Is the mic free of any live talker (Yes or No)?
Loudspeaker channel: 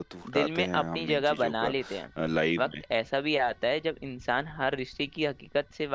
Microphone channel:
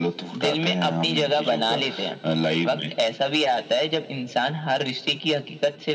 Yes